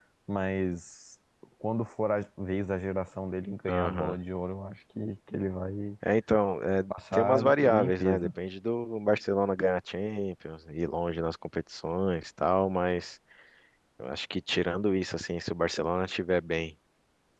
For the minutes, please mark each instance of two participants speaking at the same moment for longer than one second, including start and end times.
6.9-8.3

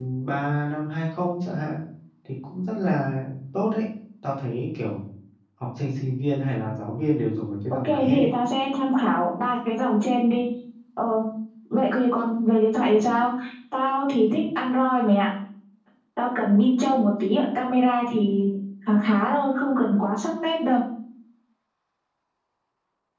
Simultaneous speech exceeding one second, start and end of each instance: none

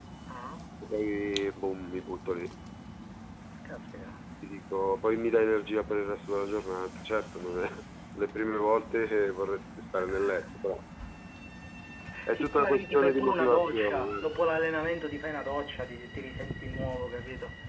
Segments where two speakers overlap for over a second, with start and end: 12.3-14.3

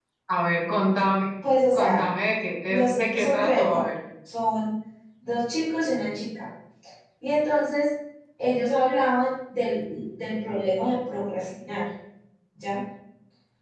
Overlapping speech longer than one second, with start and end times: 2.7-3.9

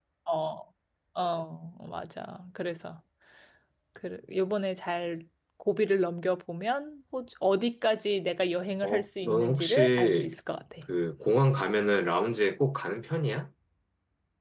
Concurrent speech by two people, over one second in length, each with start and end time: 8.8-10.3

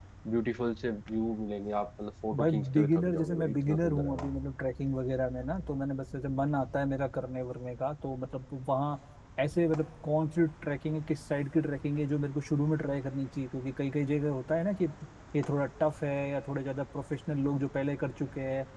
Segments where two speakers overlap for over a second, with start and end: 2.4-4.3

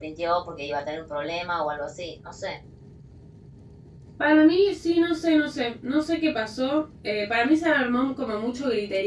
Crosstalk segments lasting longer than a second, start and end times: none

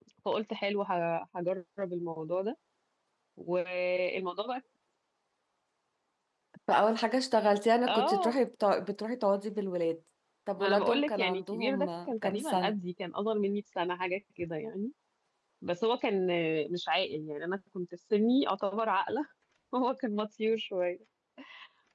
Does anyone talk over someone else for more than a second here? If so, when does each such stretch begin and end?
10.6-12.7

